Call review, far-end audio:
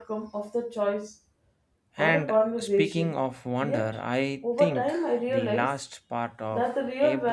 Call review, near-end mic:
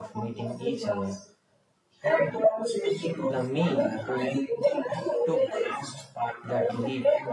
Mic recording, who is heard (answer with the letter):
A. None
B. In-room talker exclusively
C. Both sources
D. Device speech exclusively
C